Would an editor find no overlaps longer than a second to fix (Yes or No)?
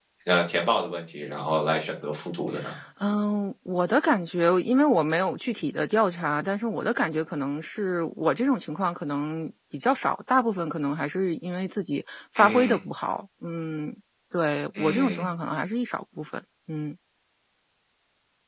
Yes